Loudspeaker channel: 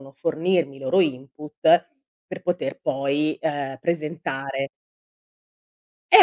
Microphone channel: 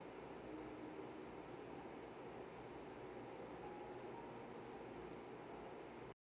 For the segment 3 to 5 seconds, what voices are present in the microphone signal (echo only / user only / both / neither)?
neither